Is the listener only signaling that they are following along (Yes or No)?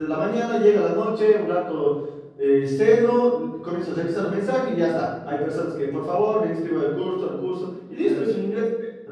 Yes